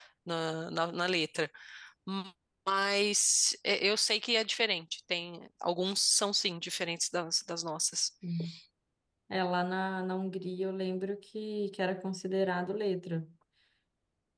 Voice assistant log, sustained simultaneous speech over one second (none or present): none